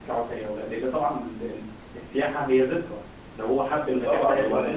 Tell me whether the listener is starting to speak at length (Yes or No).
Yes